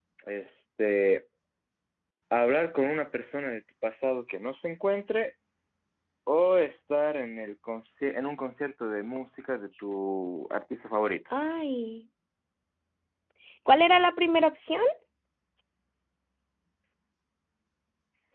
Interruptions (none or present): none